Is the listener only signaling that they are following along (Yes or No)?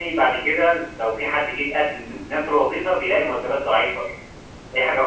Yes